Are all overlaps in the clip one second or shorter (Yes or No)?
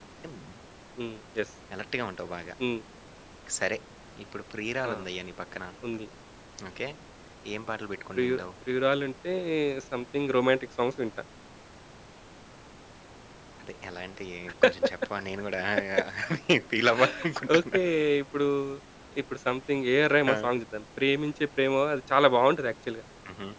Yes